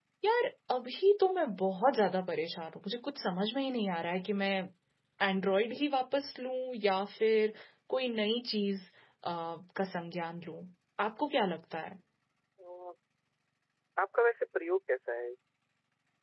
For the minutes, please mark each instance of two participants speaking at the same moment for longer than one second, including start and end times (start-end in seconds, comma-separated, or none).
none